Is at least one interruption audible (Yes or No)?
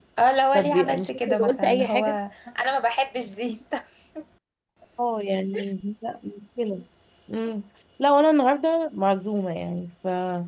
Yes